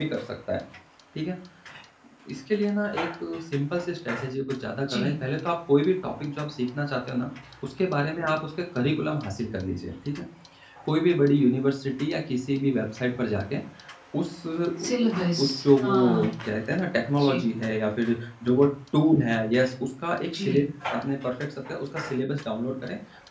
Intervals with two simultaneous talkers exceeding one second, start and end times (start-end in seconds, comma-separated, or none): none